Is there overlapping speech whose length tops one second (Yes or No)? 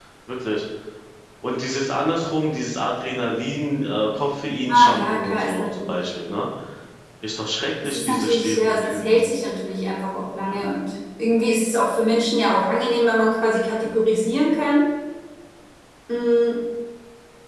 Yes